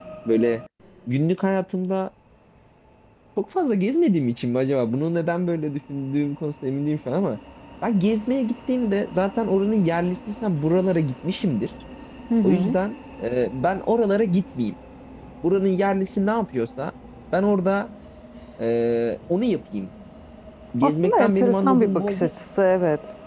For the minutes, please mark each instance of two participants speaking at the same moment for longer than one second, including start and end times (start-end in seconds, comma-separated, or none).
20.8-22.2